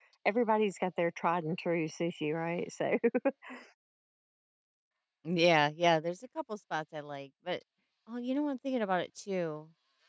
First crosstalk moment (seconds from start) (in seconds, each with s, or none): none